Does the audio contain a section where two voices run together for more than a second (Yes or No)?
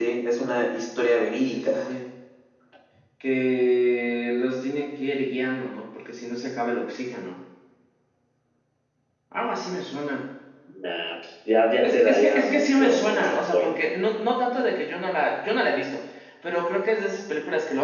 Yes